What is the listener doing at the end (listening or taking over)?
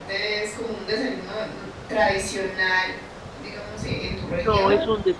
taking over